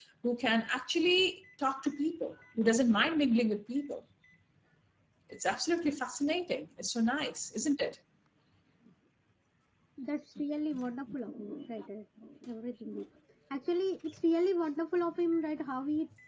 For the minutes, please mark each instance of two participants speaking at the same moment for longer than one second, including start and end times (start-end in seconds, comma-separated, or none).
none